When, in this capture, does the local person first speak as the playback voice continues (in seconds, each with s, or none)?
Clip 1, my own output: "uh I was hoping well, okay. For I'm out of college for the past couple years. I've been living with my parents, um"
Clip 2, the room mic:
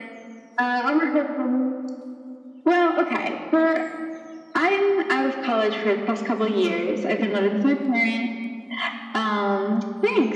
none